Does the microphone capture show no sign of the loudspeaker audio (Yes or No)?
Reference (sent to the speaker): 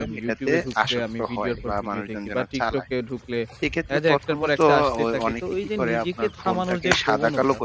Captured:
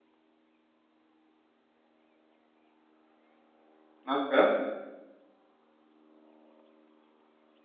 Yes